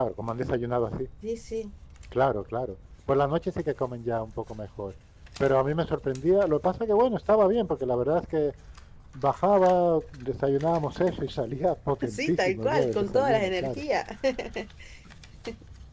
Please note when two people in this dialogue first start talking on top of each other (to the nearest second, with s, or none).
12 s